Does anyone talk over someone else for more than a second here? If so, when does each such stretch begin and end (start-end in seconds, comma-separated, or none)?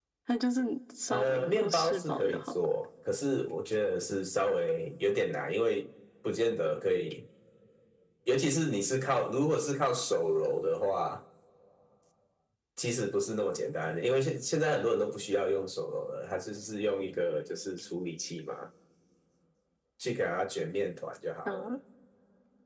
1.1-2.4